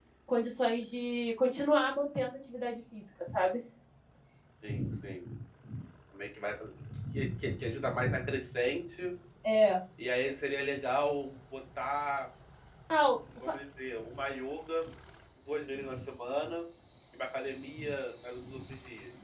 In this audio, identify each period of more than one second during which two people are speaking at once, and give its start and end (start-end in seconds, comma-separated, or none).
none